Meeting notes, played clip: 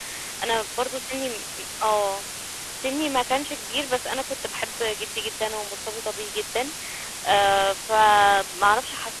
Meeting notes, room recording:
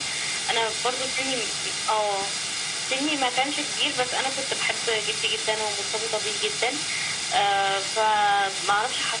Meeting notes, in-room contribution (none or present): none